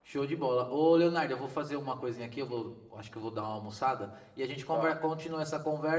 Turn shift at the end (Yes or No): No